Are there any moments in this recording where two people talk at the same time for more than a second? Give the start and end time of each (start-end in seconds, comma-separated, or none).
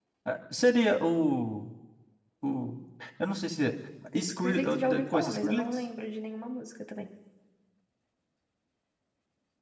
4.2-5.7